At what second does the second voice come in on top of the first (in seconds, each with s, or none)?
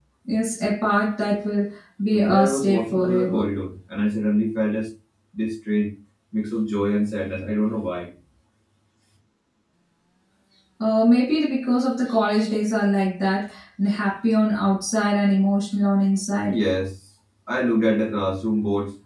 2.1 s